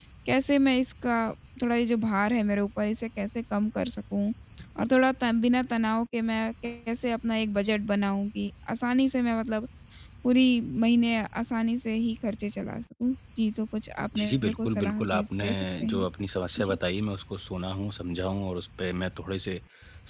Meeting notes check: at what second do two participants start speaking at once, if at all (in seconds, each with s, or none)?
14.1 s